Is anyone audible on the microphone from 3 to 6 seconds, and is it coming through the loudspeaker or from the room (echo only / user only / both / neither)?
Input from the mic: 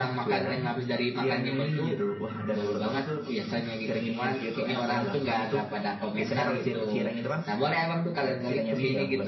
echo only